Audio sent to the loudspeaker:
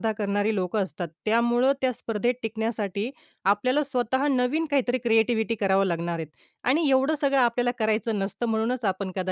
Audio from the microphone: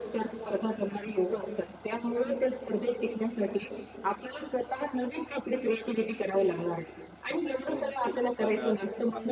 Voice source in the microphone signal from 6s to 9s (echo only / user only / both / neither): both